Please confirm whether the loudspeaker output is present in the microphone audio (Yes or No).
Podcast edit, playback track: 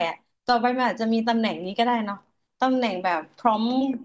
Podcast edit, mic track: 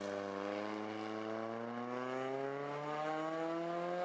No